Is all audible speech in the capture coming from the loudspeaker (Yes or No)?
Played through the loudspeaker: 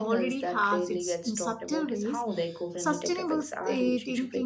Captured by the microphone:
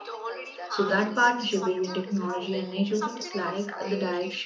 No